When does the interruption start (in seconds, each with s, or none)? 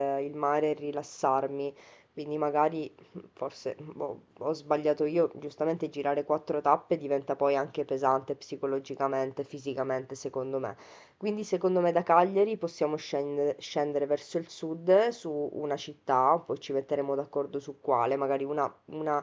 none